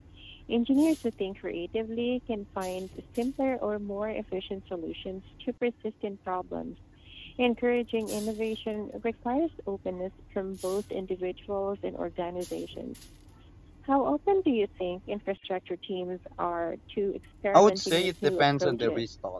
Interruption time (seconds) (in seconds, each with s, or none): 17.5 s